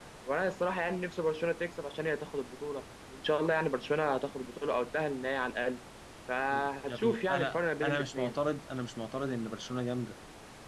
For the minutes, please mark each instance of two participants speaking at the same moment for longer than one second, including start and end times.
6.9-8.4

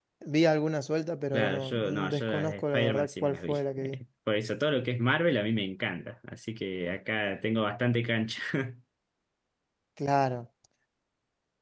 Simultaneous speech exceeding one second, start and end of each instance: 1.3-4.0

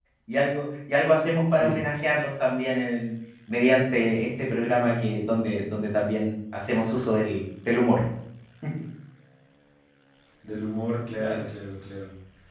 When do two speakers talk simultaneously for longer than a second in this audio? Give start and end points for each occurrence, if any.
none

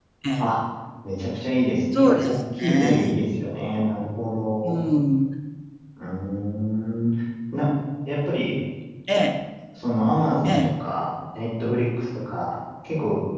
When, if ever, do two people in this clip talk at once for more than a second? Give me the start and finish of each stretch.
1.9-3.2

